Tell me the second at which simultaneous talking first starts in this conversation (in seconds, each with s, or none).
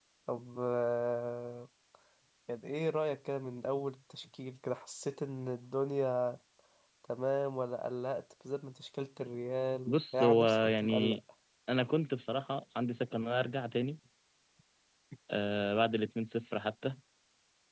9.9 s